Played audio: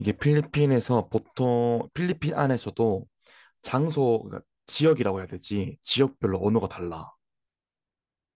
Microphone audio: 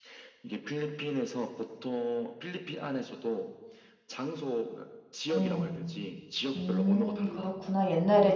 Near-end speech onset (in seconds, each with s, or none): 5.3 s